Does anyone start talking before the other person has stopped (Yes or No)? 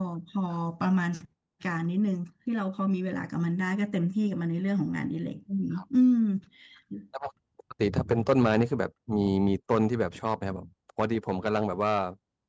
No